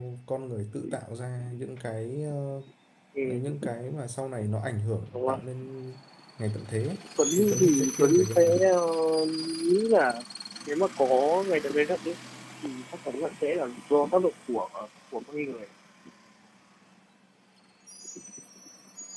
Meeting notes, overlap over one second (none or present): present